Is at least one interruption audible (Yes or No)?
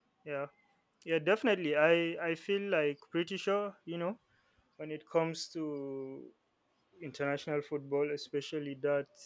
No